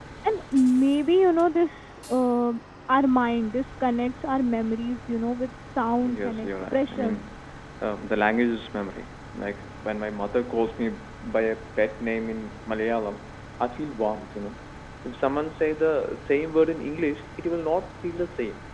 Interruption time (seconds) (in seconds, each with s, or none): 6.0 s